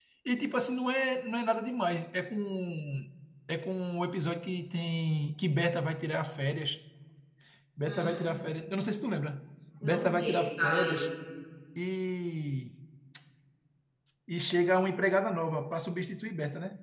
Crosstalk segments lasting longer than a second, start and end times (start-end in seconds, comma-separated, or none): 9.8-11.0